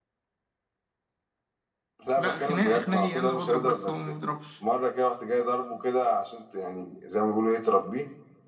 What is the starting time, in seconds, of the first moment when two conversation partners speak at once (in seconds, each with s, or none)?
2.2 s